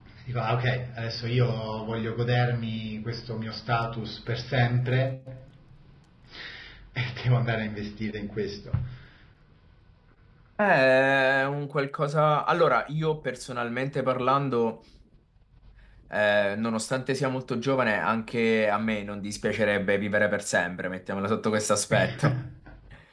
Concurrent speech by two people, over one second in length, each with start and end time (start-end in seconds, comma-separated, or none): none